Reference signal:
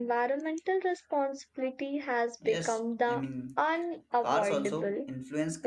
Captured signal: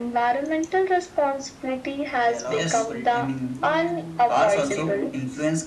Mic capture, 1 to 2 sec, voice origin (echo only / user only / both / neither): echo only